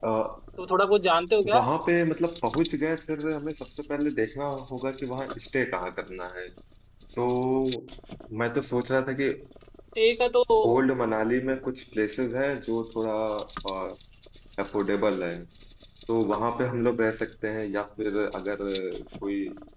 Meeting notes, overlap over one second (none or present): none